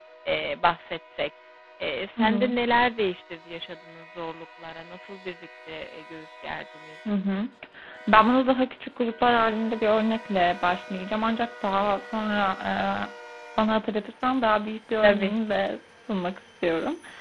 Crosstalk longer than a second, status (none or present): none